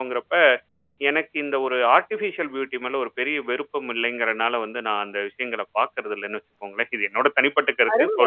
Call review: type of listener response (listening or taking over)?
taking over